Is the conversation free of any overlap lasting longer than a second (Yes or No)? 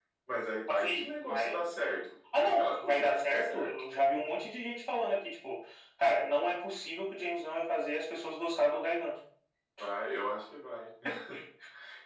No